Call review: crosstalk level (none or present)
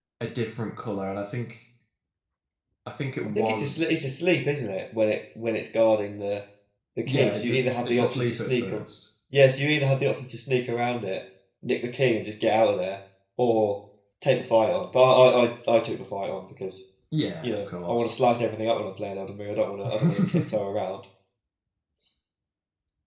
present